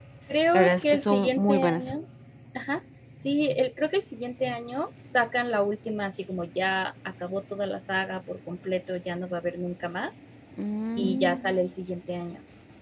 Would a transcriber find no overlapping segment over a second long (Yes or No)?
No